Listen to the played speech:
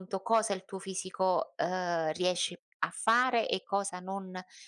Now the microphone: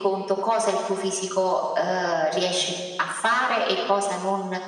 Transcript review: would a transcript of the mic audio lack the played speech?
No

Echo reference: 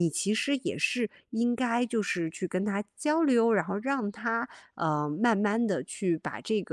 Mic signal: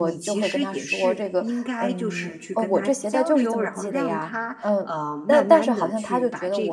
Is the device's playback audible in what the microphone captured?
Yes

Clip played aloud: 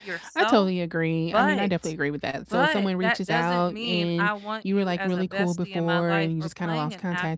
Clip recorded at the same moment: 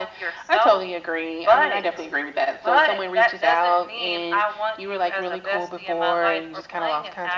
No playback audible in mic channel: No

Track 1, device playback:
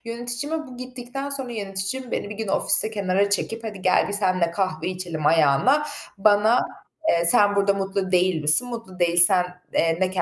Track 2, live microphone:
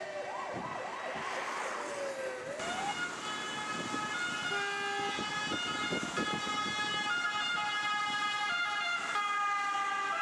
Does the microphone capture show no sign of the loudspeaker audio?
Yes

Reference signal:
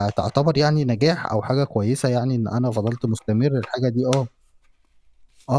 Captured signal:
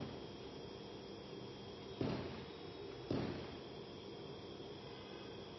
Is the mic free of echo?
Yes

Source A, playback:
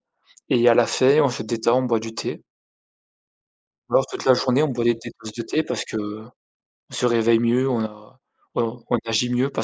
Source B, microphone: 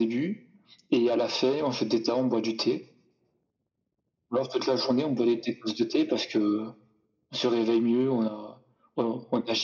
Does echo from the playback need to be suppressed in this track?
Yes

